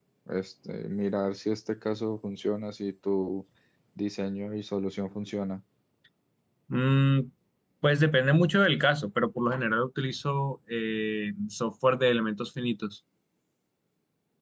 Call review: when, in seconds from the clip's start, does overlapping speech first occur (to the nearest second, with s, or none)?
none